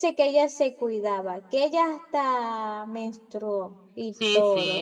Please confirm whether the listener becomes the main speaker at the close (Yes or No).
Yes